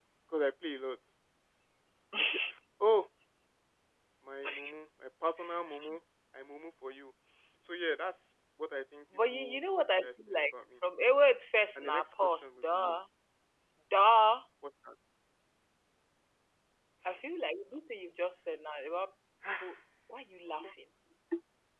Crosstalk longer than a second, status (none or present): present